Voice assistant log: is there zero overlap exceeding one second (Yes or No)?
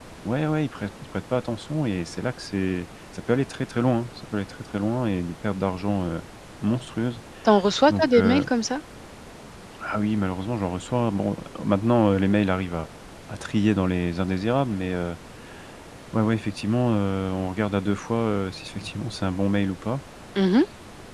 Yes